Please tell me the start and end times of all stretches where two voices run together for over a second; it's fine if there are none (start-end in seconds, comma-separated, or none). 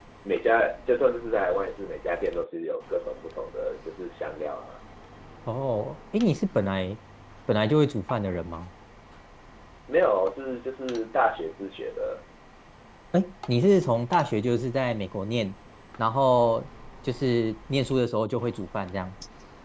none